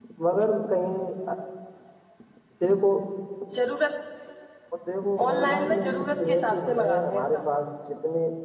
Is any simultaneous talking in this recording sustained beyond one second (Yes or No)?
Yes